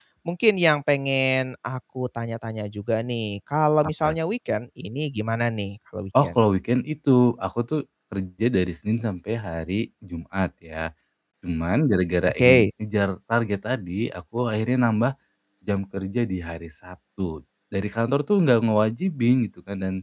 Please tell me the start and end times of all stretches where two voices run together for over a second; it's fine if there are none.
none

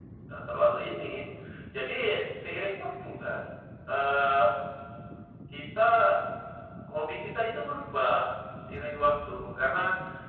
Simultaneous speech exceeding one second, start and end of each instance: none

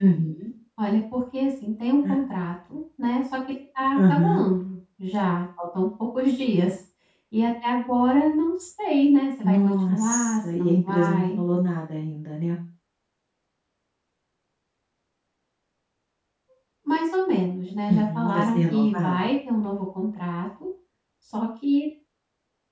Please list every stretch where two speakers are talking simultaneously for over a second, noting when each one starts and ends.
9.4-11.4, 17.9-19.3

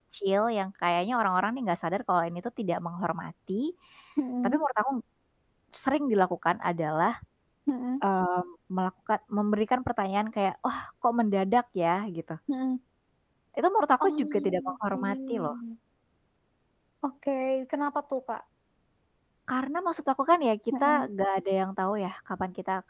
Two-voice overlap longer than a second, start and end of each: 14.0-15.6

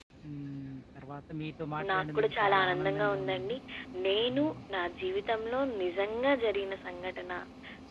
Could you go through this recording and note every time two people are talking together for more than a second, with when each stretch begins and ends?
1.9-3.6

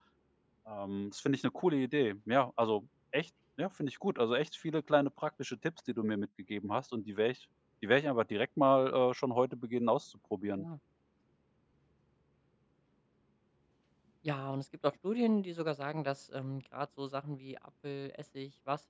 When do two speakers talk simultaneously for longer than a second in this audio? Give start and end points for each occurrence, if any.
none

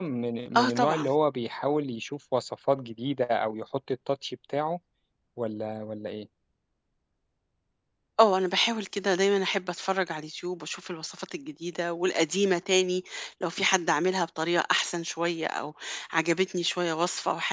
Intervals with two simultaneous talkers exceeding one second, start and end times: none

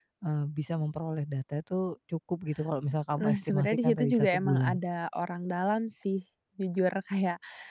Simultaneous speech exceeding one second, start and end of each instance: 3.2-4.8

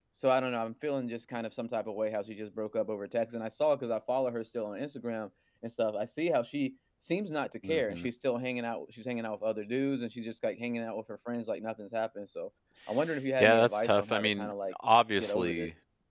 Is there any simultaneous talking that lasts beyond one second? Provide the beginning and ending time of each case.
13.4-14.7

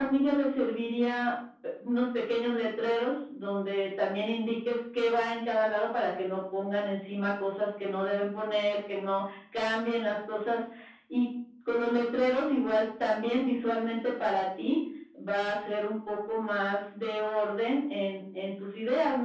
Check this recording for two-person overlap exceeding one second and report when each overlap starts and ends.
none

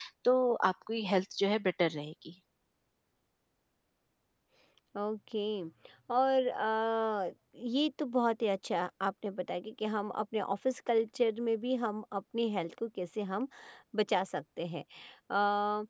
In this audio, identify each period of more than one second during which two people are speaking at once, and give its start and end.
none

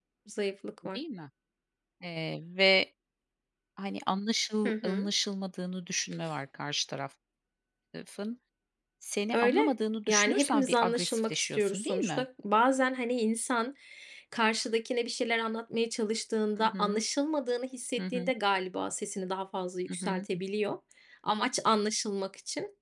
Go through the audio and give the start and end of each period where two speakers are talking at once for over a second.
10.1-12.2

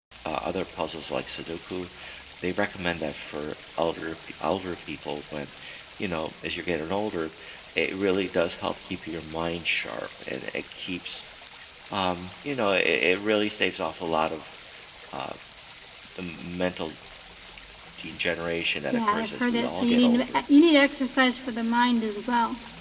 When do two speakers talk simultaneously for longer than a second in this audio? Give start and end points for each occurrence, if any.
18.9-20.2

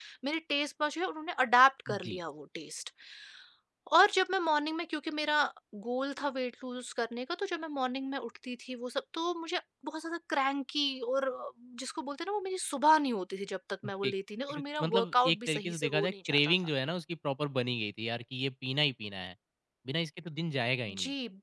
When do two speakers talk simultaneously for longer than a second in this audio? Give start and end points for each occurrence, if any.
14.5-16.7

